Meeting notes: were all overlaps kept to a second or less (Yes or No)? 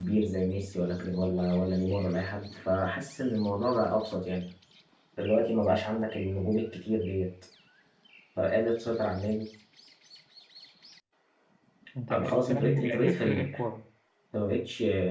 No